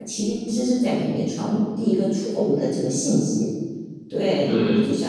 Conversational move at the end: listening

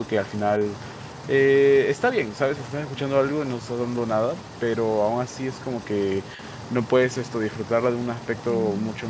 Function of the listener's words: listening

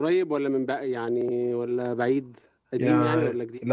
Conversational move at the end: taking over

